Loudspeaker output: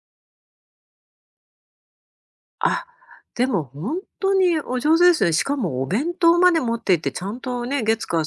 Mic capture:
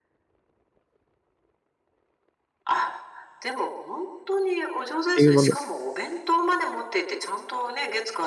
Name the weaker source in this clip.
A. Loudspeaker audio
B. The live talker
A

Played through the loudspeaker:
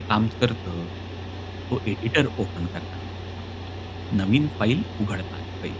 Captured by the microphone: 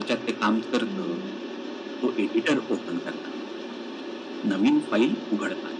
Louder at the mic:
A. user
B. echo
B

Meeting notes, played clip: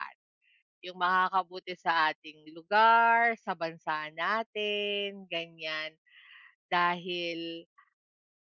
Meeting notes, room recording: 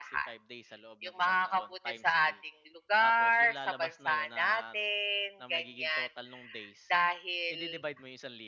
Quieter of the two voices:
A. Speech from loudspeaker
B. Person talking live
B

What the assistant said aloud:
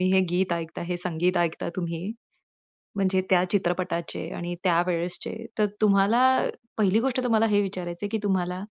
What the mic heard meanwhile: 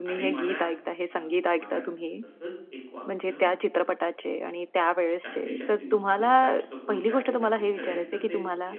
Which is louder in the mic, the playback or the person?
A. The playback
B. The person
A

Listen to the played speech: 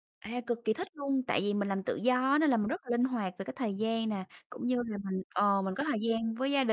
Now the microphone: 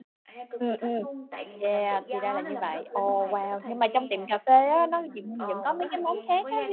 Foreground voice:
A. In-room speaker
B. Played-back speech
A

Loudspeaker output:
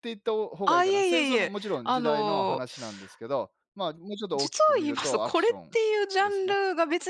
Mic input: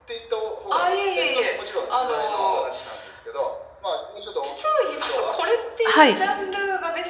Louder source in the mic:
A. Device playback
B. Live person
B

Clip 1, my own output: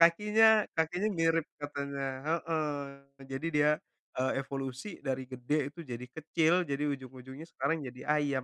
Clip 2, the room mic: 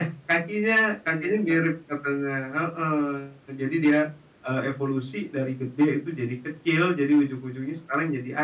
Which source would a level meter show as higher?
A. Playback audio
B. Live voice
A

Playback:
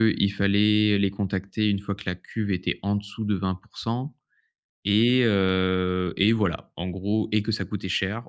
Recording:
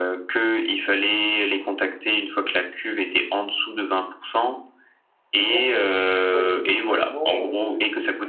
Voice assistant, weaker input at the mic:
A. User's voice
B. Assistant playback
A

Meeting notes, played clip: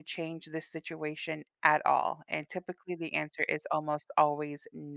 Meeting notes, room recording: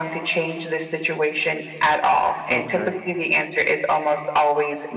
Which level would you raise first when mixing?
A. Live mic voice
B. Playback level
A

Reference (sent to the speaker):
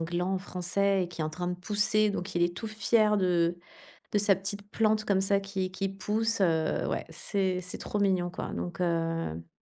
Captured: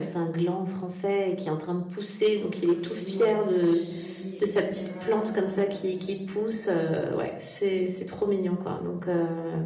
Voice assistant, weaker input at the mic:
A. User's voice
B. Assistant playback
A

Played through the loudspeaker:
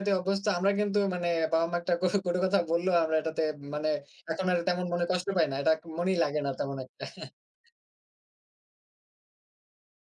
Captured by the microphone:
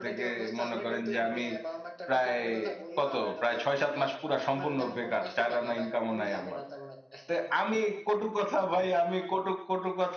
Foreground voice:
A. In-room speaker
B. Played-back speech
A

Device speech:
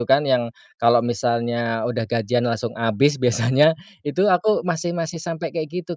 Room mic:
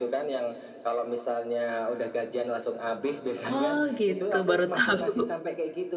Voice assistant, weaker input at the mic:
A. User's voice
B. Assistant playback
B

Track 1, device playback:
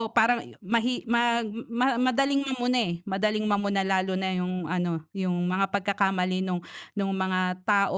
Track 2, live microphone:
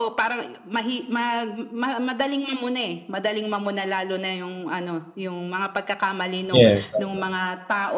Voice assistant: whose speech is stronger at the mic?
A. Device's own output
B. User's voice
B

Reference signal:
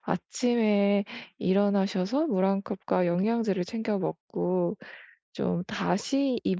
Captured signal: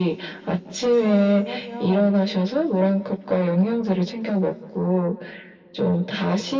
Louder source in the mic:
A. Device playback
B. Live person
A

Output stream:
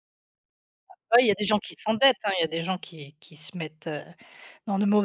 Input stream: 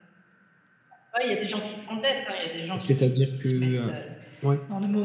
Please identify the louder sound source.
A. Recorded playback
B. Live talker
B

